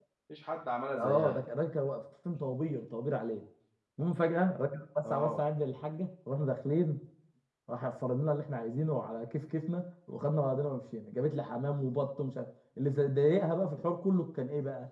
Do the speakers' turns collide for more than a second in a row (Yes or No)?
No